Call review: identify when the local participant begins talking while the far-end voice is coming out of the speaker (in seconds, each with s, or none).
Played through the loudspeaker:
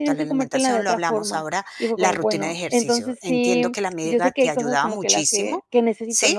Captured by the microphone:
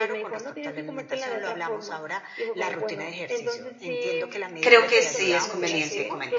4.6 s